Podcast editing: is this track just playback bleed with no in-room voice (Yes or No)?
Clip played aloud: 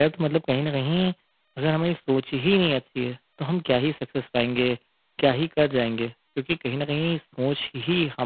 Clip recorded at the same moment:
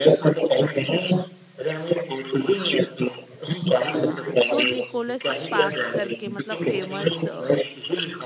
No